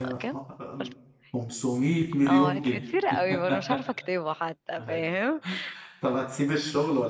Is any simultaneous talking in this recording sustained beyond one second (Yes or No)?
No